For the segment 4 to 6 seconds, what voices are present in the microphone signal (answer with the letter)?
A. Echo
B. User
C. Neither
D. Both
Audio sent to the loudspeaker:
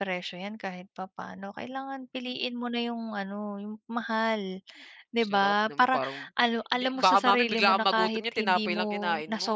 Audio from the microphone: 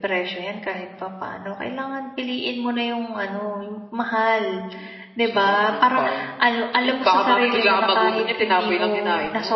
A